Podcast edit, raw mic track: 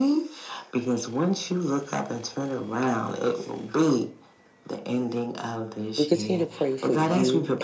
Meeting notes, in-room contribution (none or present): present